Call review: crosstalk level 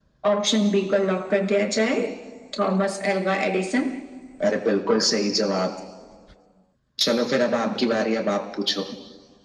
none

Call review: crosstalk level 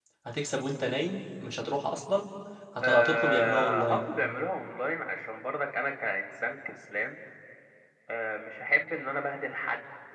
present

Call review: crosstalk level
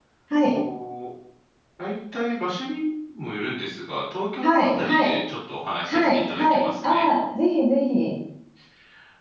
present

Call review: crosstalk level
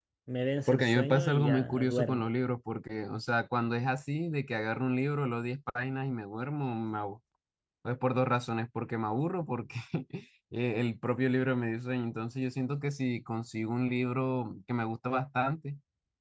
present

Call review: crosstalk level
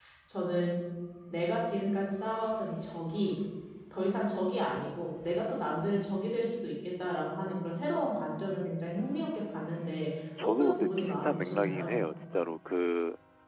present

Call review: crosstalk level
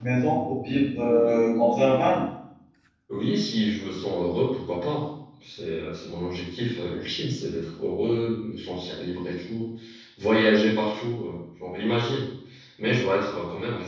none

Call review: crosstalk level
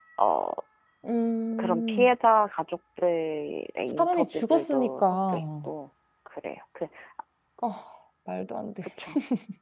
present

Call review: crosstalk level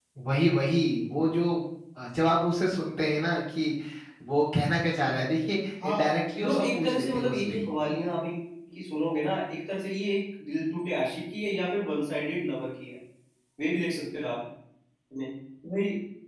present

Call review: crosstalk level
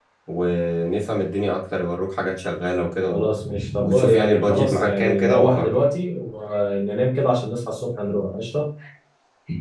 present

